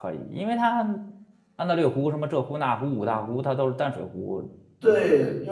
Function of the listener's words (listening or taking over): taking over